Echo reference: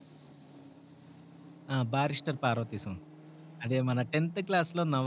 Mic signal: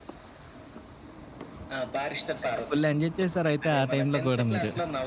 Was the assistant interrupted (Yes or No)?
Yes